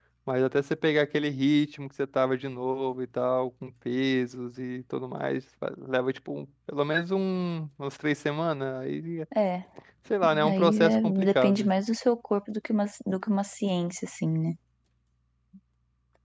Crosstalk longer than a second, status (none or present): present